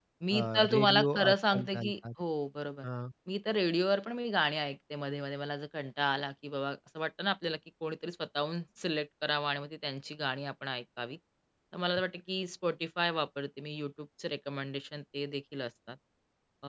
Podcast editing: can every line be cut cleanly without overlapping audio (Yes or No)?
No